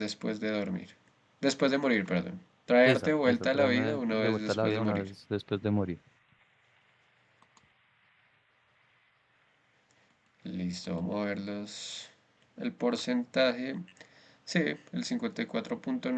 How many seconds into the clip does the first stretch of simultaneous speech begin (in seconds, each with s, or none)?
2.8 s